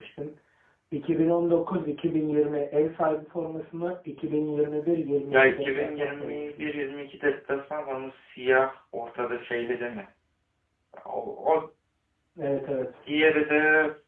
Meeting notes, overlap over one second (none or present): present